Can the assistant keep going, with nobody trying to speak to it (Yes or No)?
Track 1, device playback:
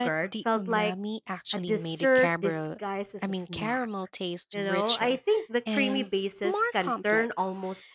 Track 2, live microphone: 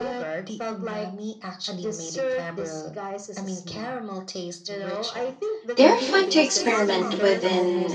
No